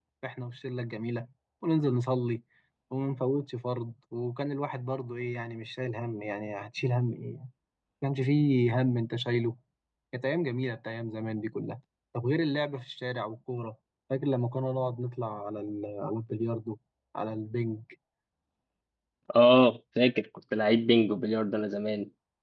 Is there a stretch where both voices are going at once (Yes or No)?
No